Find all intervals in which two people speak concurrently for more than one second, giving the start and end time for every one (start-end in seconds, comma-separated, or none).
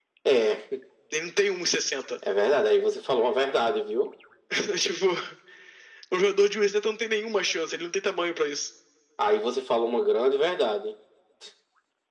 none